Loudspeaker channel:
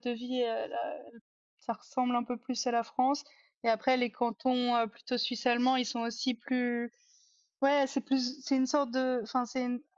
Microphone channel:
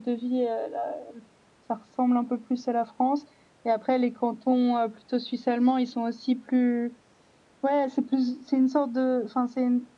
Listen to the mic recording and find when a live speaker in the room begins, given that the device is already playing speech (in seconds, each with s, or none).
none